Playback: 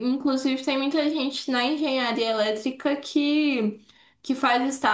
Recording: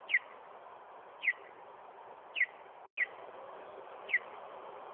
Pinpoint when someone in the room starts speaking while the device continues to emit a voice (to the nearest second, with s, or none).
none